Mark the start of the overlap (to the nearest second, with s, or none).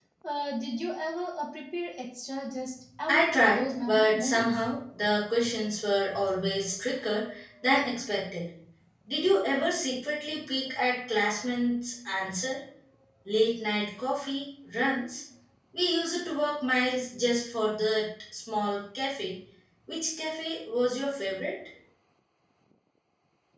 3 s